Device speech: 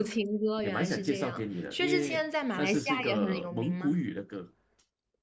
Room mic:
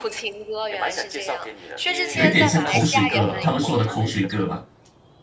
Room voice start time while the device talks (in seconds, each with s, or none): 2.1 s